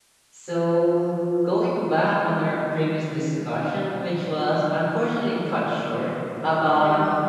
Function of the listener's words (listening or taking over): listening